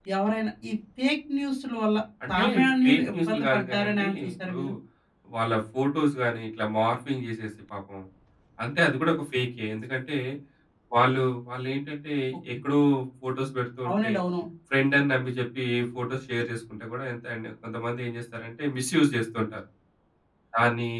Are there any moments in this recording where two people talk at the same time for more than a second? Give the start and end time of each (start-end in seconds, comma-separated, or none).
2.8-4.6